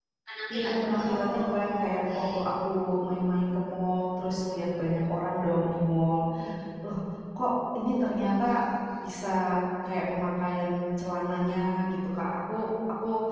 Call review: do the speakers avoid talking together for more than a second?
No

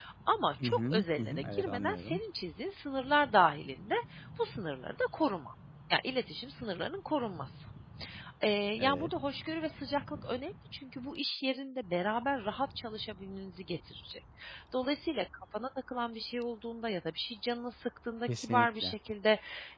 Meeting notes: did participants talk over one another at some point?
Yes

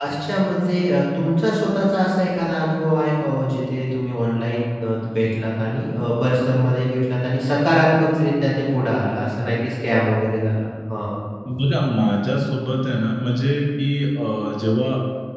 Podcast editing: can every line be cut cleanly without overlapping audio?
Yes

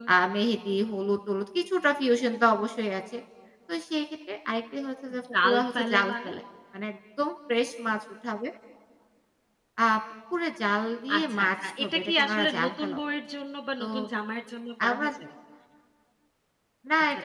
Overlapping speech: Yes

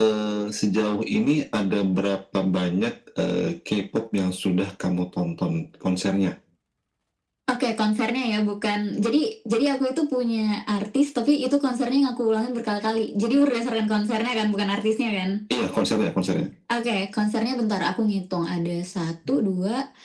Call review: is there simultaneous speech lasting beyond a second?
No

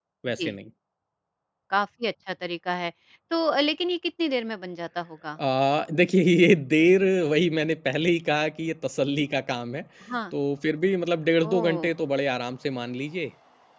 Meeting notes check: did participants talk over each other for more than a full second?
No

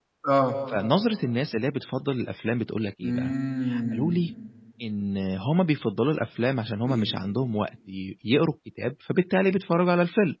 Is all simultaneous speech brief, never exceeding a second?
Yes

